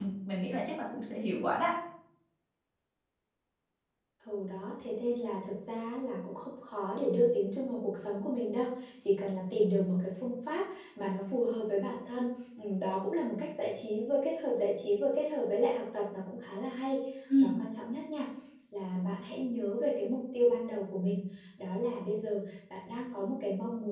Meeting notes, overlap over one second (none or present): none